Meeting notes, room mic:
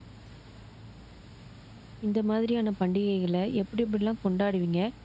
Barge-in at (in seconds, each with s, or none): 2.1 s